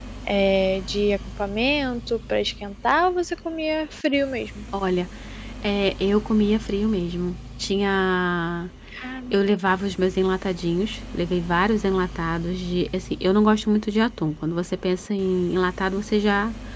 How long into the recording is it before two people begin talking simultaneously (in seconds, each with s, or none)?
none